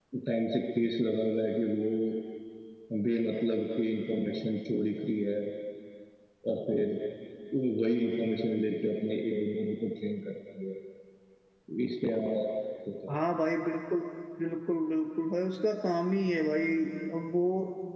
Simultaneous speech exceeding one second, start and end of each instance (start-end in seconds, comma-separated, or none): none